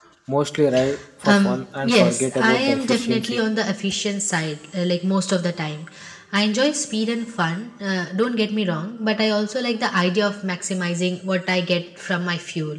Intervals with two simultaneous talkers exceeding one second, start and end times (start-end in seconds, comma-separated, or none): 1.2-3.4